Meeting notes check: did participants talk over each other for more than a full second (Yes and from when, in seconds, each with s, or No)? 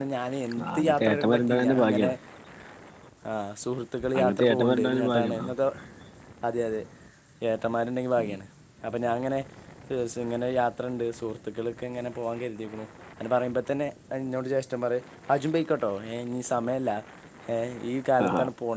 Yes, from 0.8 s